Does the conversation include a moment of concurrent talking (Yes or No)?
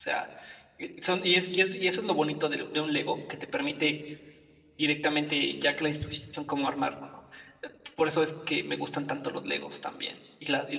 No